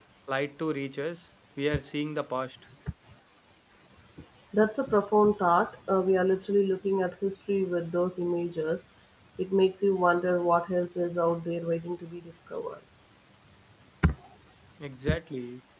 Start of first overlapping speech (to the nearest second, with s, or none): none